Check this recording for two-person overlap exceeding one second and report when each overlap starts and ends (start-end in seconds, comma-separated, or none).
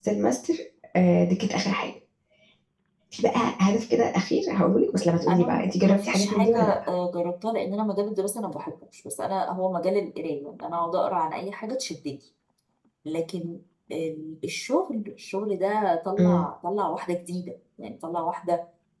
5.3-6.7